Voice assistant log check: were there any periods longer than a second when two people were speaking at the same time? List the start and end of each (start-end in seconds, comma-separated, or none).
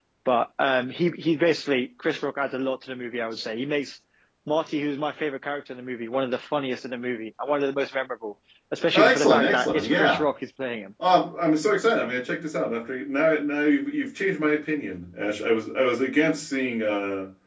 8.9-10.2